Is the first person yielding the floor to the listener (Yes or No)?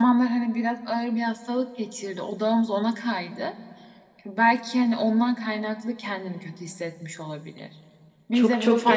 Yes